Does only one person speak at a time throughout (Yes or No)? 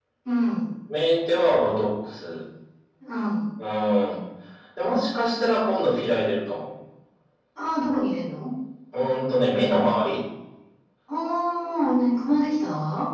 Yes